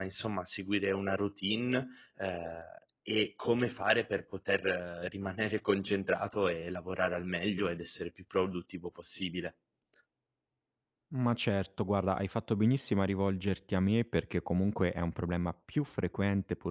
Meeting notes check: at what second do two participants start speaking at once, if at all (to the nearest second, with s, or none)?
none